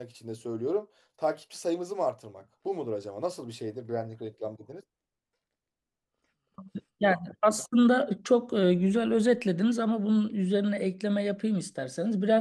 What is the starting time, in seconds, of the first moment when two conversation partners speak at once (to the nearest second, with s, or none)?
none